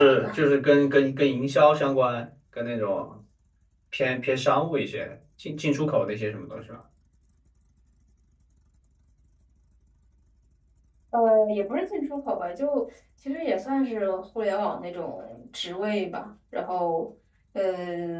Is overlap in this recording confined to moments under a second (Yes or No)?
Yes